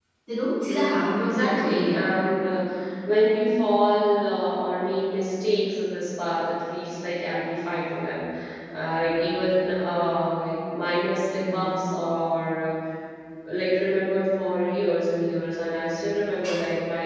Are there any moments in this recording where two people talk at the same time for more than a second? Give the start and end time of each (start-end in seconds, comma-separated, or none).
0.7-2.1